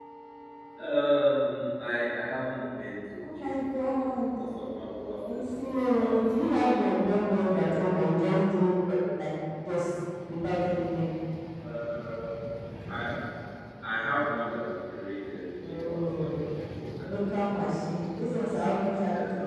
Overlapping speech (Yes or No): Yes